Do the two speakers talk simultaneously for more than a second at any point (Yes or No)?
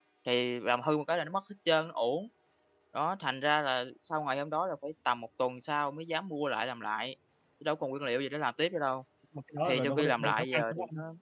Yes